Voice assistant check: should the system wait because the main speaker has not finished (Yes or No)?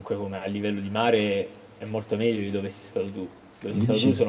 Yes